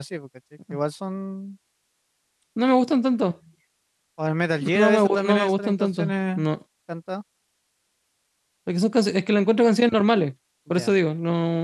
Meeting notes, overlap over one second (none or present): present